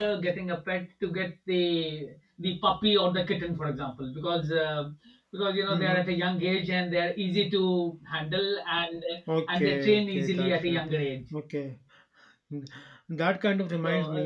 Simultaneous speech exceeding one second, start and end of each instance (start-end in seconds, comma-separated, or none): 9.5-10.8